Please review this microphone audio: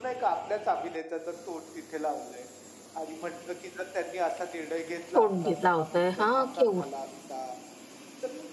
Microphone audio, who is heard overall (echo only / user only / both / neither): both